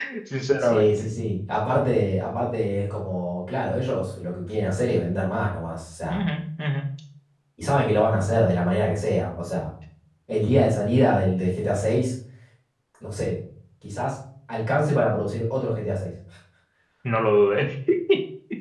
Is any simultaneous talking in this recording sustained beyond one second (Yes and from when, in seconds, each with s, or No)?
No